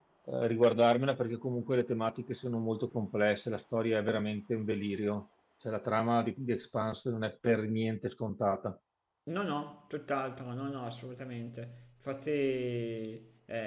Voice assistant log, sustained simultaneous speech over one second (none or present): none